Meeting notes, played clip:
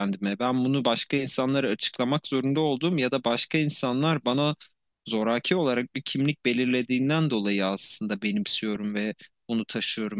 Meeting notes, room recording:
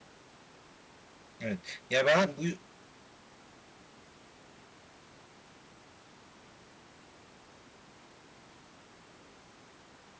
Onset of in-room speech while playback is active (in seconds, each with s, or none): 1.4 s